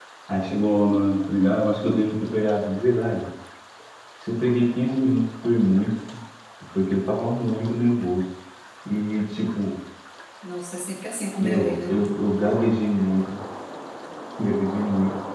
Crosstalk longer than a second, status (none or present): none